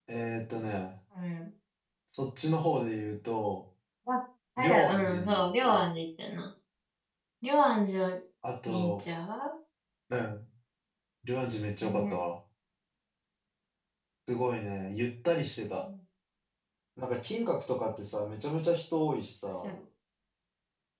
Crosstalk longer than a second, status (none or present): present